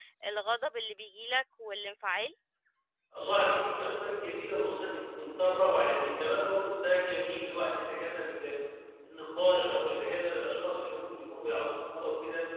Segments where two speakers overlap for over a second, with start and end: none

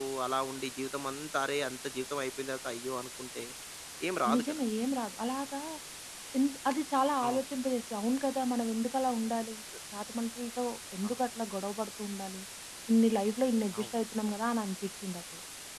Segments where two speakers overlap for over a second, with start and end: none

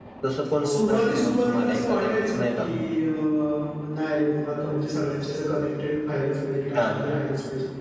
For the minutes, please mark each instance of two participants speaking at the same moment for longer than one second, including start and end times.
0.6-2.6

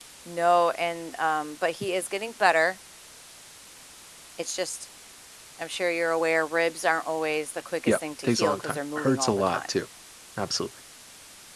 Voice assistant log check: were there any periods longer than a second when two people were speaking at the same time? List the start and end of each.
7.9-9.7

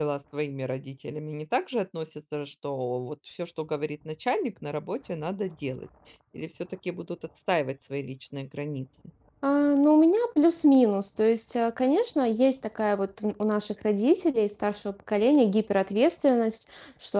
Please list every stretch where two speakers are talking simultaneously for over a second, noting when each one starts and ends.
none

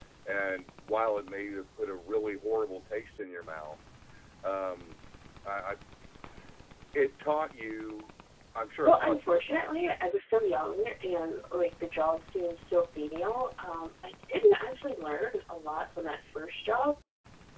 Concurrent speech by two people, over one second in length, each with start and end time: 8.8-10.2

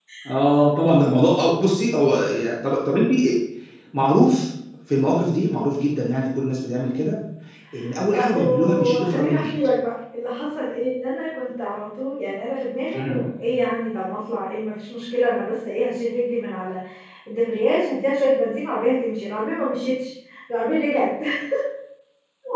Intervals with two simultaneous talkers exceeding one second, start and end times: 8.1-9.5

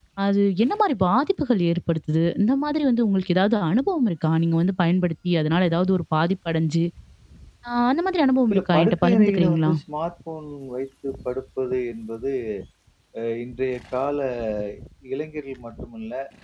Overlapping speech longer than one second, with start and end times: 8.5-9.7

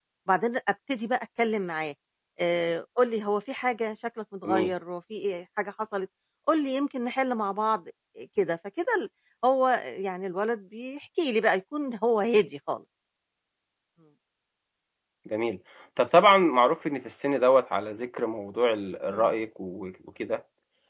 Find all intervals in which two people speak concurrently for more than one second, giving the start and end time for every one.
none

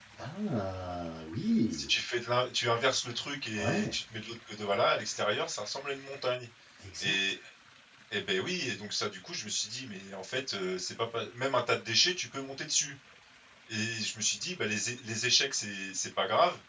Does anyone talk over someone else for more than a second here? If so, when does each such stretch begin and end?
none

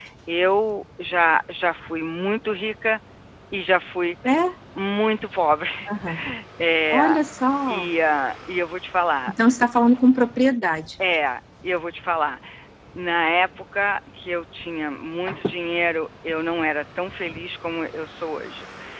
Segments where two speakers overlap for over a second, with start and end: none

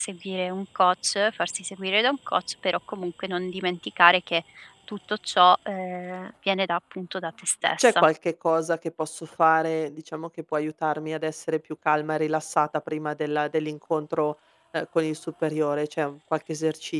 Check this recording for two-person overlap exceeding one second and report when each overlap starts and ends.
none

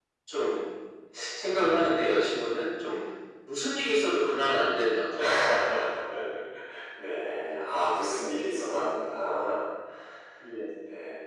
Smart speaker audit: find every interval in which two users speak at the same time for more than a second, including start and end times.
none

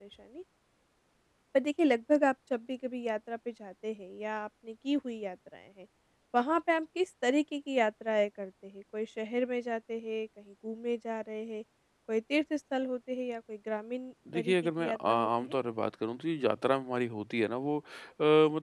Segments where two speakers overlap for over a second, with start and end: 14.3-15.6

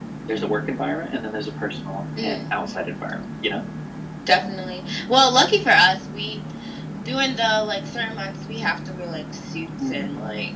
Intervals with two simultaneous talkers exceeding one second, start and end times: none

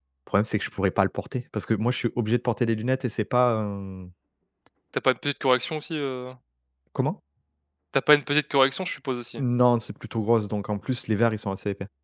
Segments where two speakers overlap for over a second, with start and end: none

